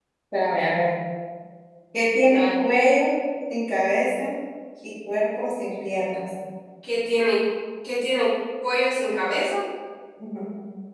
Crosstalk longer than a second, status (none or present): none